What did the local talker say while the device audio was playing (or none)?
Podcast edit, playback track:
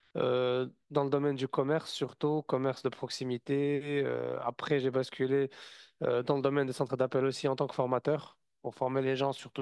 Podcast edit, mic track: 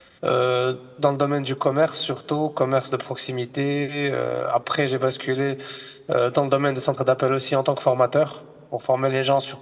none